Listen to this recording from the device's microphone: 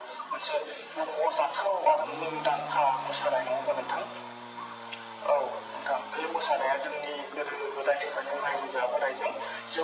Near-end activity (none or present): none